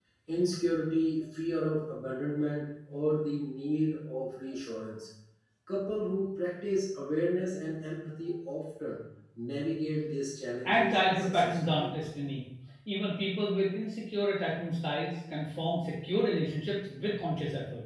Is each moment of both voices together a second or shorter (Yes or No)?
No